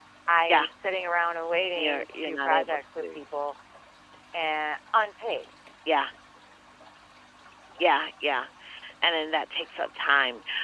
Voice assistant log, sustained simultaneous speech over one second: present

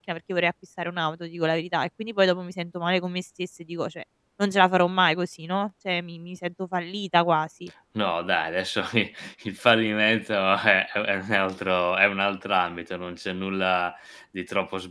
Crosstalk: none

